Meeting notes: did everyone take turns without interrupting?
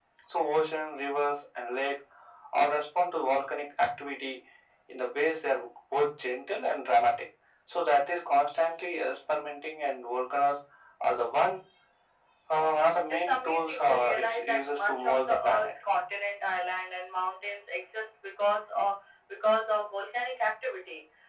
No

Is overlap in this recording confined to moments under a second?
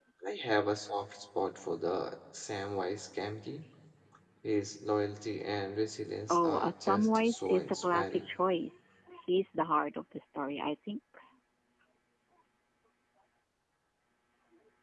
No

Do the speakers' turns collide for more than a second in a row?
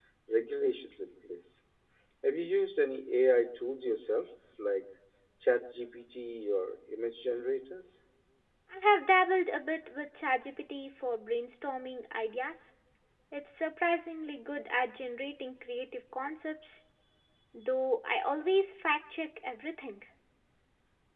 No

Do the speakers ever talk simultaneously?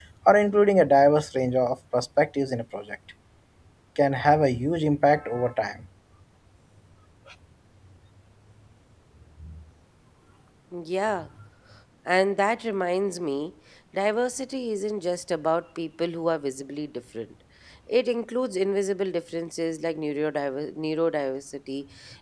No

